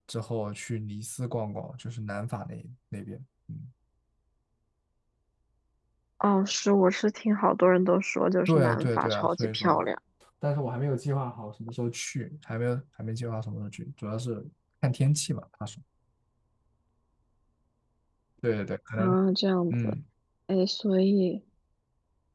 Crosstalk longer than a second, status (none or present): present